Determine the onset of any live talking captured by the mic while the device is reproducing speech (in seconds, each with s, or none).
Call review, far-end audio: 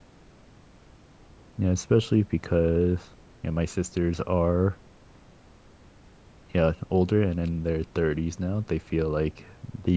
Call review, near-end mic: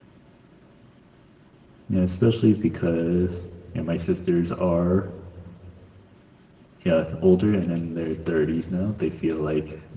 none